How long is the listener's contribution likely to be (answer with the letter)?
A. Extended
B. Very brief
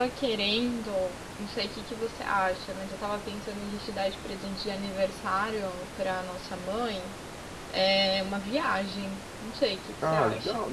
A